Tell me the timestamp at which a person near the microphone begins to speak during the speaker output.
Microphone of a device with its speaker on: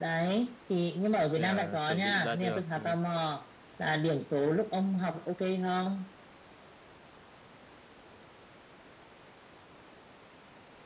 1.4 s

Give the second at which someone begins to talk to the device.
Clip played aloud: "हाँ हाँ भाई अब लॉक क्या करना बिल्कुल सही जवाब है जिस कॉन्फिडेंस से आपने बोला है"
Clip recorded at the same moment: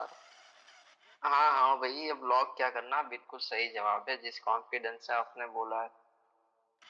none

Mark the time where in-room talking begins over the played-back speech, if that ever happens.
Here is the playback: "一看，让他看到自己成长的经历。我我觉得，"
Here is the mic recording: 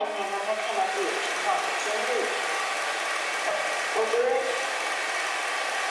none

